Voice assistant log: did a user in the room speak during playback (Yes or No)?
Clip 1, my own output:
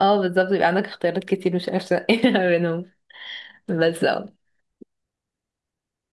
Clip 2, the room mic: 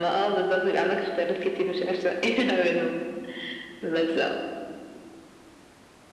No